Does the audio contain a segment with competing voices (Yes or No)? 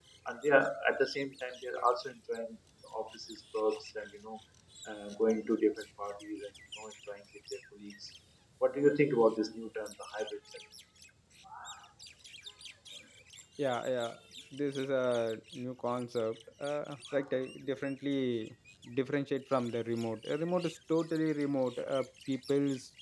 No